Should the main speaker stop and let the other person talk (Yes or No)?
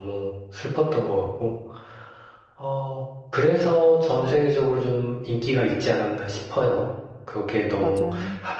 No